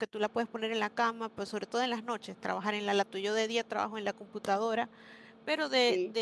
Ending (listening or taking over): listening